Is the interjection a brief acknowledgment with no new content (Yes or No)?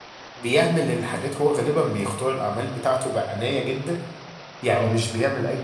Yes